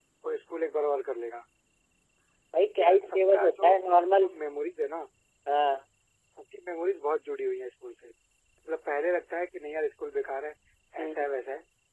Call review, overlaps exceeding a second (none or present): present